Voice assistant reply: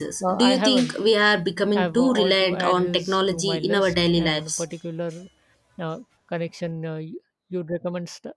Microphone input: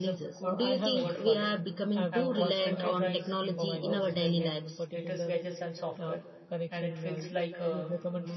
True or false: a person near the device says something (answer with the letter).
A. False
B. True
B